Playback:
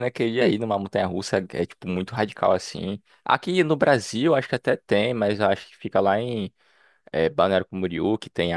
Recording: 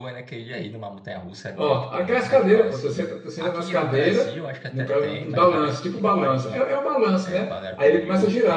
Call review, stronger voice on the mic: user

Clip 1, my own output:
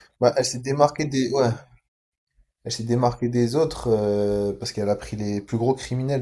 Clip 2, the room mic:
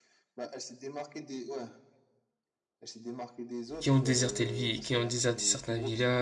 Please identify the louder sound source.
user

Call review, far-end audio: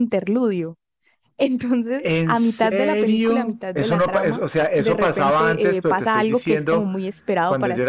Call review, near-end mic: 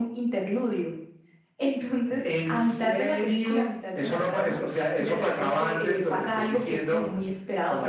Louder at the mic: echo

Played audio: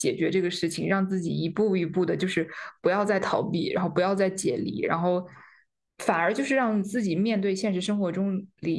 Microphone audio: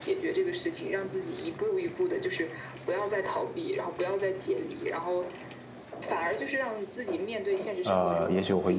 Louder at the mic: user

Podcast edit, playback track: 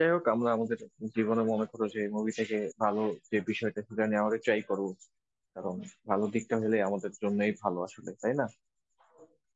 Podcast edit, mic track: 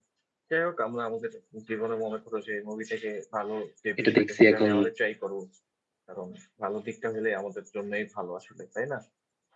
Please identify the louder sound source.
user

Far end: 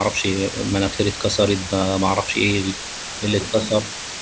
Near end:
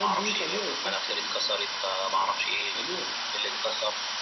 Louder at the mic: echo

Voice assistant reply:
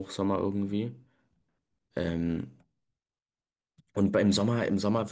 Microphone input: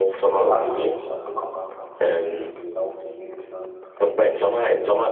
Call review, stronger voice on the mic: echo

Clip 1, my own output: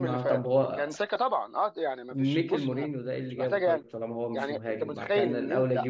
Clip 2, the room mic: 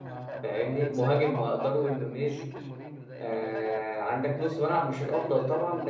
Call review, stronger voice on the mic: user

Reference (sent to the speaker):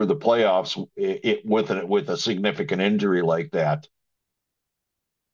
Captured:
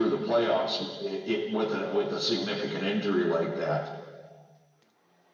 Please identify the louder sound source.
echo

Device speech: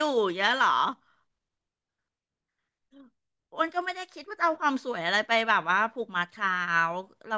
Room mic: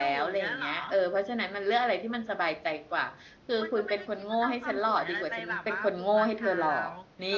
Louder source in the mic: user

